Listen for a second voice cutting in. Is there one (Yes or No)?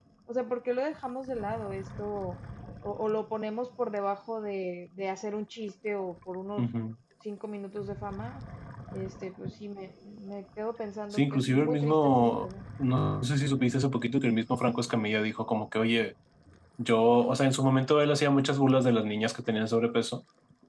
Yes